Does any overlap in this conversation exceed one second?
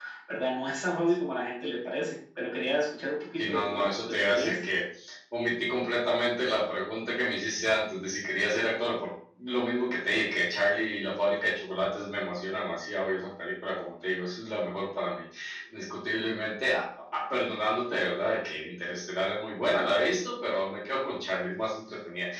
Yes, from 3.4 s

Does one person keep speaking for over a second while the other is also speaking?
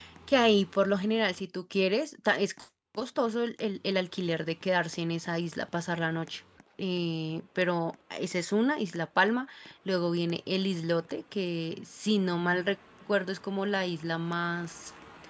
No

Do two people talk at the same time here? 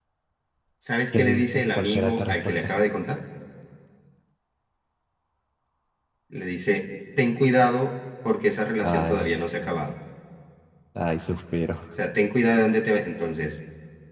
Yes, from 1.1 s

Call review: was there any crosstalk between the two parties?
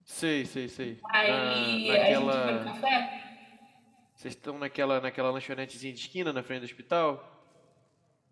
Yes, from 1.2 s

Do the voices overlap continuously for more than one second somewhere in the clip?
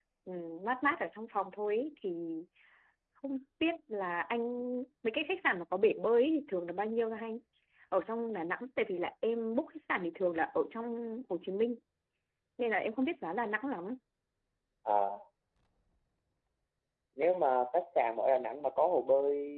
No

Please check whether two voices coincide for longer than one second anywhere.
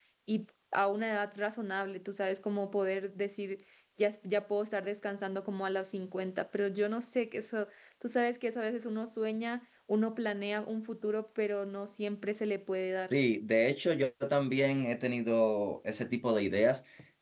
No

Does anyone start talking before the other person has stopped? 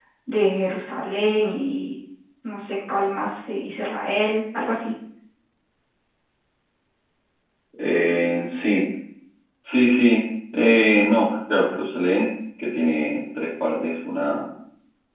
No

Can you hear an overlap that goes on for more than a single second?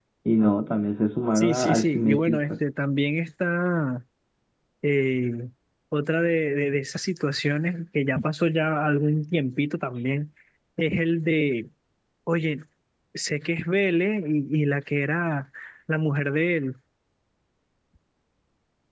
Yes, from 1.4 s

